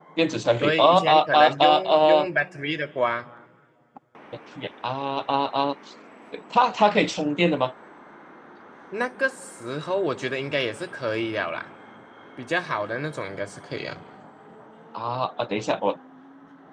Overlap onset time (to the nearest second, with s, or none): 1 s